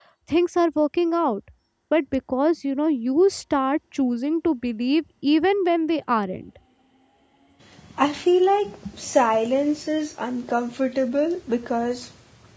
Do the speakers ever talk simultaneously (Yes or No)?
No